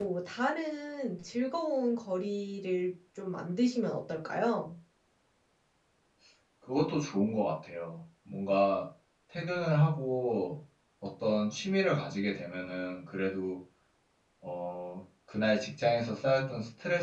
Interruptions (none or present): none